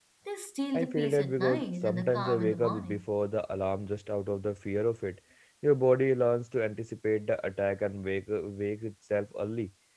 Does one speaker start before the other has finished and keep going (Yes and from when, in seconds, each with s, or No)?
Yes, from 0.7 s